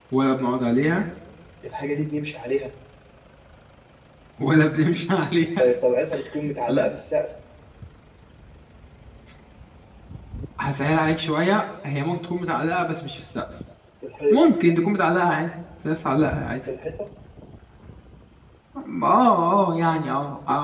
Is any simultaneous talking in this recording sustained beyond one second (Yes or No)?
No